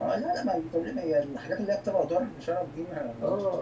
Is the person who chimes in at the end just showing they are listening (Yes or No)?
No